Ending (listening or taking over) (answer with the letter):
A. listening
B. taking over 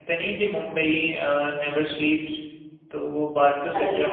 A